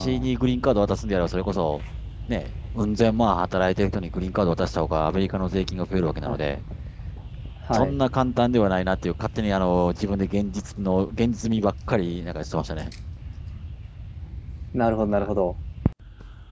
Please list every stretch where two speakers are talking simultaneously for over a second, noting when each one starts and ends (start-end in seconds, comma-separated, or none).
none